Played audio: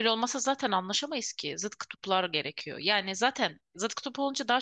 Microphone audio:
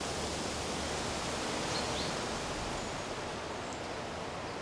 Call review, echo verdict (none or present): none